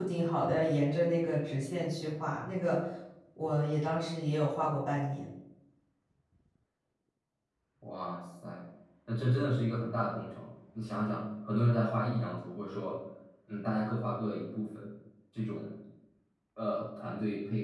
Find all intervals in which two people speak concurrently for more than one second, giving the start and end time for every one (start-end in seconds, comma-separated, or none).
none